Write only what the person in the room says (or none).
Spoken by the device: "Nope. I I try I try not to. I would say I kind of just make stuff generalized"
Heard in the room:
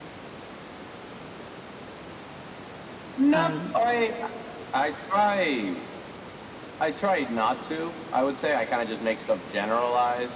Um,